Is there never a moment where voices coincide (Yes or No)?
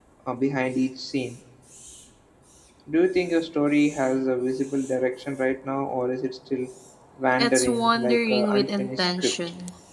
No